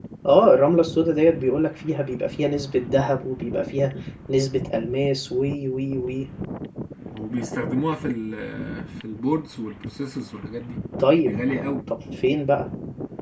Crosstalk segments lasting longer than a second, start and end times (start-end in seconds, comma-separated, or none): none